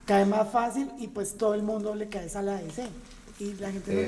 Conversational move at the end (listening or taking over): listening